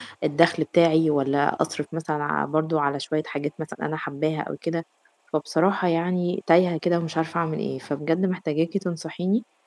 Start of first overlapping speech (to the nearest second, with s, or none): none